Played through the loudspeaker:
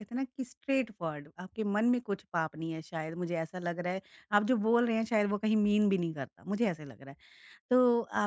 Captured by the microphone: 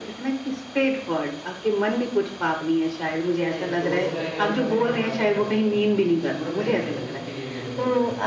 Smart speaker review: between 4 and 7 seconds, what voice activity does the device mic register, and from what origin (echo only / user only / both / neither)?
both